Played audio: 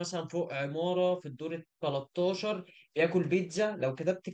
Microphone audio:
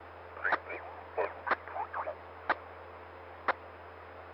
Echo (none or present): none